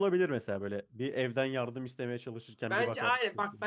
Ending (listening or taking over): taking over